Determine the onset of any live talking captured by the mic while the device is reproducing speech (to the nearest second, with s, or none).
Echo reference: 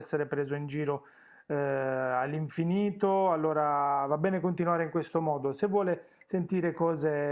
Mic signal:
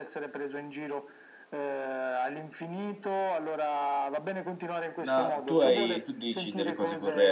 5 s